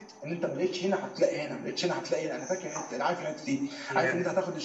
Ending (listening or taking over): listening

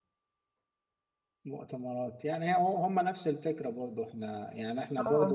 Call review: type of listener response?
listening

